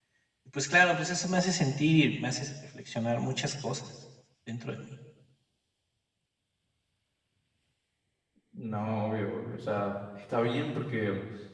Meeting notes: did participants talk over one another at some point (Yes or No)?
No